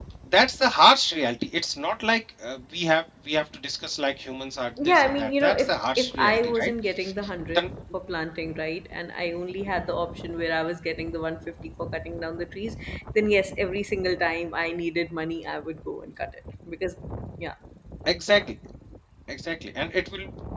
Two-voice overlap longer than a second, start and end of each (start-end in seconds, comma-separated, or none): 4.8-6.7